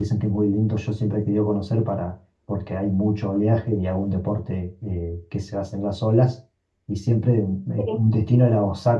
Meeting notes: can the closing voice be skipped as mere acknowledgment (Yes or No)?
Yes